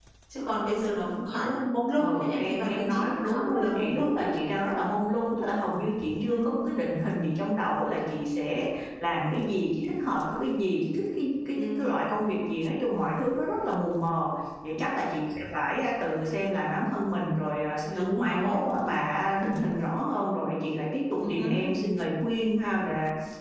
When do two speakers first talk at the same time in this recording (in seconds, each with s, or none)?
2.0 s